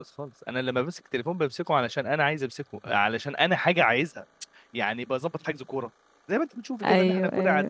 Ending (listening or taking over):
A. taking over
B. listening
B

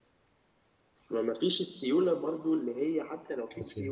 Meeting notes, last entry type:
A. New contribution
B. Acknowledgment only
B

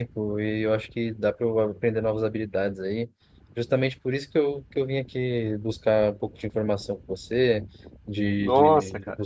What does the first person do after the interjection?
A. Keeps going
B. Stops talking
A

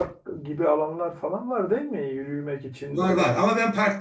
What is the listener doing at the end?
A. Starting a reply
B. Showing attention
A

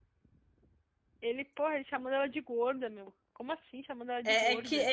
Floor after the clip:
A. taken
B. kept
A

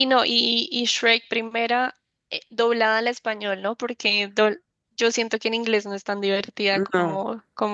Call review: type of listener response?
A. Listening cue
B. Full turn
A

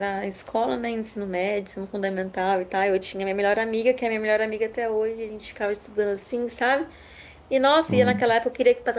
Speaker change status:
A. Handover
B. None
B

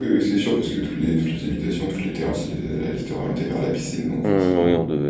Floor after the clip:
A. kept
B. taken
B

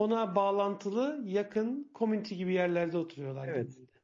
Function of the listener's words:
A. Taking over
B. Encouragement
A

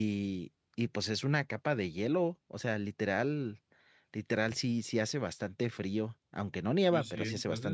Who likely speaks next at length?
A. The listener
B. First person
A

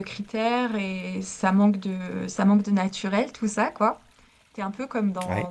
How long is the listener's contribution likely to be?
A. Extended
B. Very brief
B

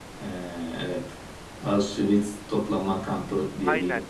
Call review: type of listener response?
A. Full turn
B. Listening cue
A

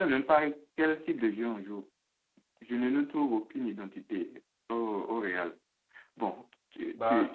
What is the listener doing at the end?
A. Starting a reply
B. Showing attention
B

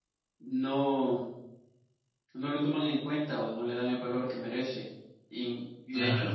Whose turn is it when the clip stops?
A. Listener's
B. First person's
B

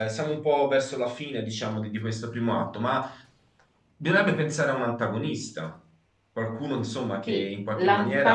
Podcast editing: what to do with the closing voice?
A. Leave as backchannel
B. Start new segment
B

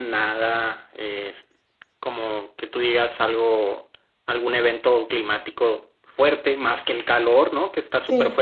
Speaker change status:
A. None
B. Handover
A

